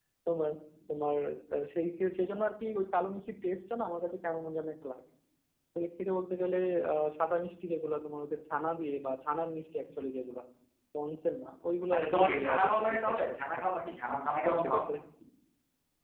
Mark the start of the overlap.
11.9 s

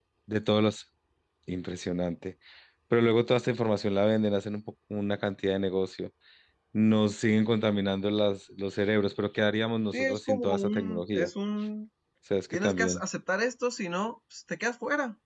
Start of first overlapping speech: 9.9 s

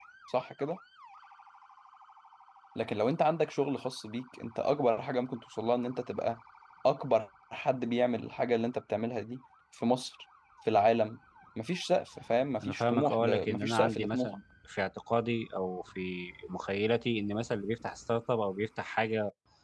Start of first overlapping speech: 12.6 s

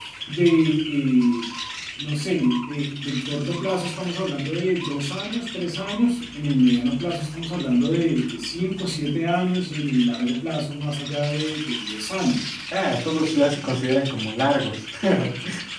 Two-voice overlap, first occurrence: none

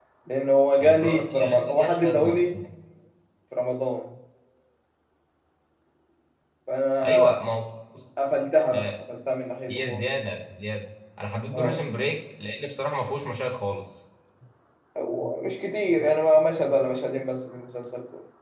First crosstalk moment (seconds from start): 0.8 s

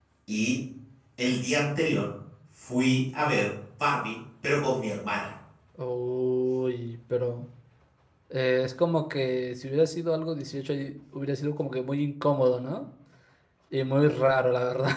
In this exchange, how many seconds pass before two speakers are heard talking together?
none

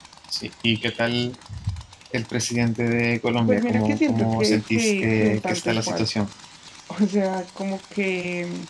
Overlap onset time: 3.4 s

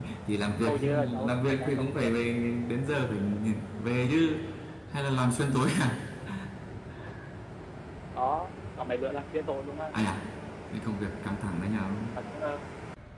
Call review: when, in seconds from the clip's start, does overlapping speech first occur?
0.6 s

